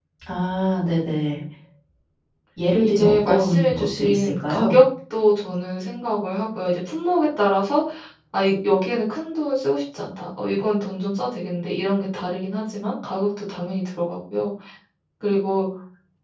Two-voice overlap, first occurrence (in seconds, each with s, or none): 2.8 s